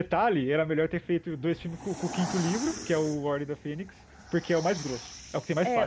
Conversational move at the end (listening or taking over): taking over